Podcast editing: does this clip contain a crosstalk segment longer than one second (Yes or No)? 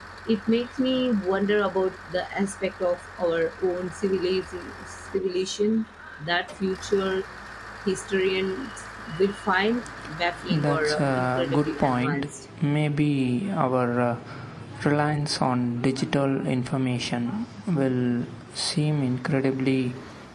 Yes